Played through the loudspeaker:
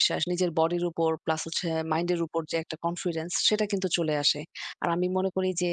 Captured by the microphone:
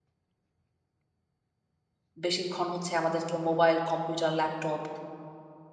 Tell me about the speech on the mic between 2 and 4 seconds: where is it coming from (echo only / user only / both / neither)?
user only